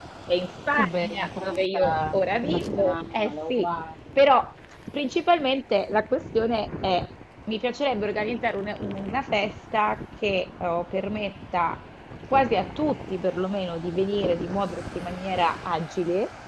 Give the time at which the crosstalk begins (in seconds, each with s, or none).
0.8 s